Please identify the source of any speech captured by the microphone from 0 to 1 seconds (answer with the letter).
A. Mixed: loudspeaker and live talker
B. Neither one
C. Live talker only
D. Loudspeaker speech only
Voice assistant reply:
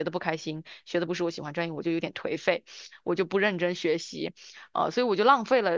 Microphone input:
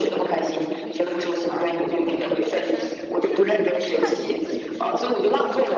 A